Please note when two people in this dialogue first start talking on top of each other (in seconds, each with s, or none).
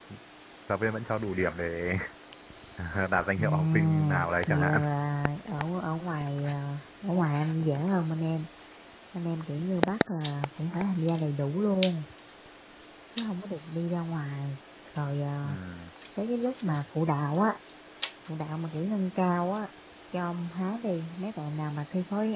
3.3 s